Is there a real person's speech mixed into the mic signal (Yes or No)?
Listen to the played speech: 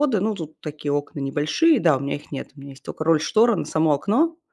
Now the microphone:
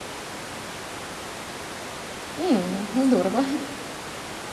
Yes